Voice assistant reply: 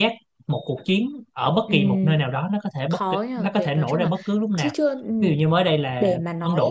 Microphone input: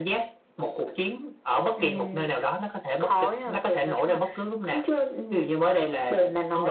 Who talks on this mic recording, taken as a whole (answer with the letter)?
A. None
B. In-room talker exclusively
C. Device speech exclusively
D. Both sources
C